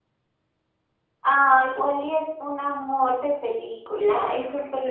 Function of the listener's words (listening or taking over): taking over